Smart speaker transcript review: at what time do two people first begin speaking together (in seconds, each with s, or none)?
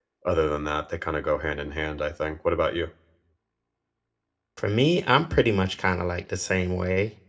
none